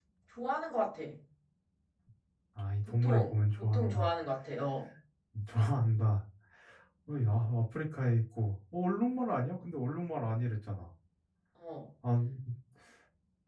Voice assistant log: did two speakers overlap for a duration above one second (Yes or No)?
Yes